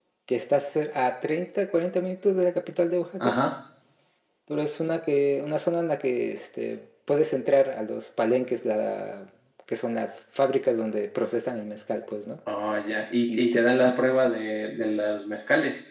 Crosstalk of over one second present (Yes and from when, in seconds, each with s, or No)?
No